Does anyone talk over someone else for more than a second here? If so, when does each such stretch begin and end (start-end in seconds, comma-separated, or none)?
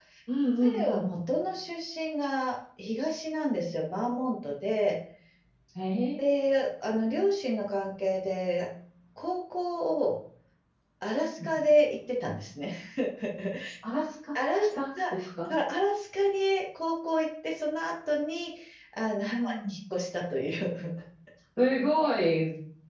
none